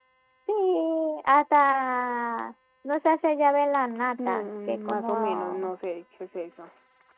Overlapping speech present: Yes, from 4.2 s

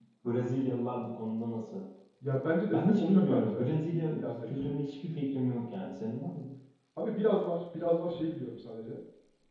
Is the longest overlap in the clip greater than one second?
Yes, from 2.7 s

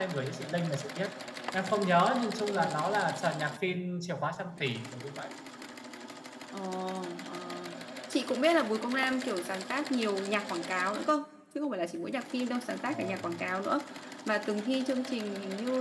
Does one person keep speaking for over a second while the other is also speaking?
No

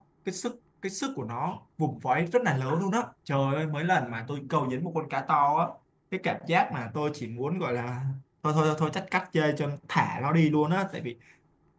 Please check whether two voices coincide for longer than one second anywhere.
No

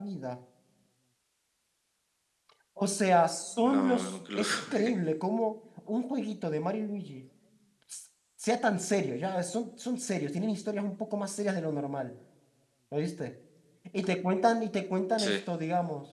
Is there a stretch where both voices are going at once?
Yes, from 3.6 s

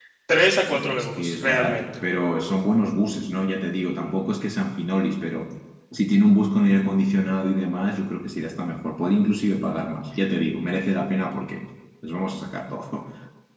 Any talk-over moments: Yes, from 0.7 s

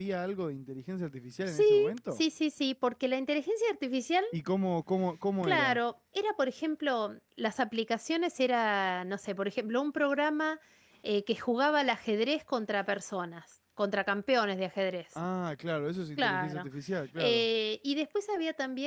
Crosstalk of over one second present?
No

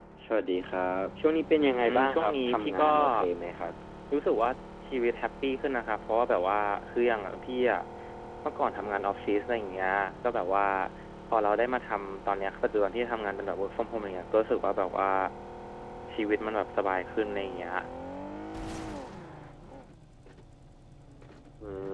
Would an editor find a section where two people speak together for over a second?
Yes, from 1.6 s

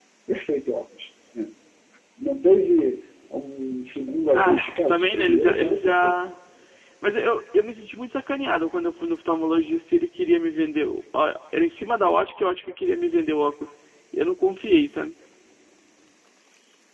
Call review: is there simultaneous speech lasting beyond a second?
Yes, from 4.3 s

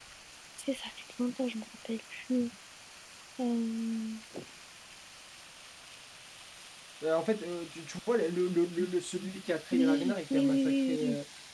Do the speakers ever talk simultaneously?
Yes, from 9.7 s

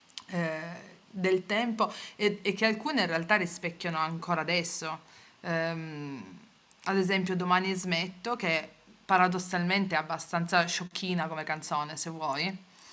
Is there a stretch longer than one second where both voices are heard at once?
No

